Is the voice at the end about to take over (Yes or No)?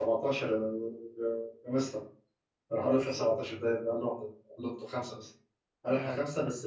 No